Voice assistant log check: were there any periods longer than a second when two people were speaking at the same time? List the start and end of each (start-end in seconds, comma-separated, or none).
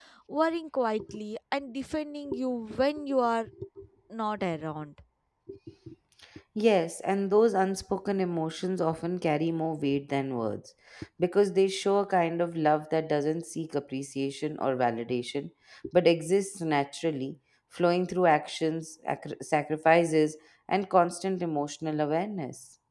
none